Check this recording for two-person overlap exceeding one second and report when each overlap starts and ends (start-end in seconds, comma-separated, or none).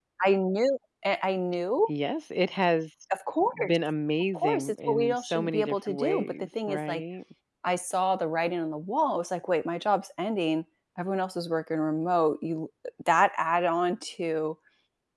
4.3-7.0